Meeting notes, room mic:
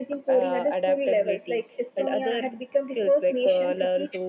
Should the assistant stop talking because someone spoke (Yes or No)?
No